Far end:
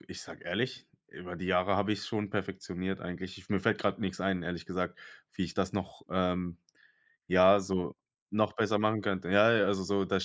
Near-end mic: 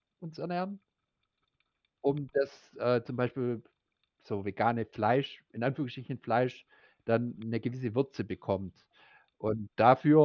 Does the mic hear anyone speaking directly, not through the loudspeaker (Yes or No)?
Yes